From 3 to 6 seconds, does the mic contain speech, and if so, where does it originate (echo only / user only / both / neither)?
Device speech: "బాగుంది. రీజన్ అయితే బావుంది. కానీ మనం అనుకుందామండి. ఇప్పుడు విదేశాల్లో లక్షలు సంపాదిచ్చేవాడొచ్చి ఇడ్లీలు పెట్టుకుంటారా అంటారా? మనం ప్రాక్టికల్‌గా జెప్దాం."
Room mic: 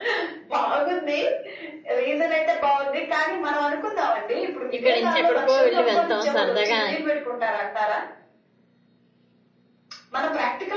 both